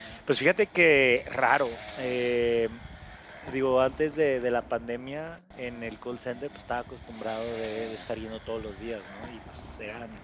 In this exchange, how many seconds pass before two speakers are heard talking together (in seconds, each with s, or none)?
none